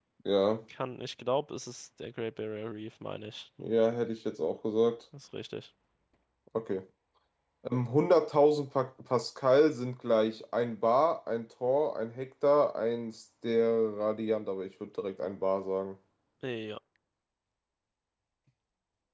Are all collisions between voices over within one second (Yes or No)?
Yes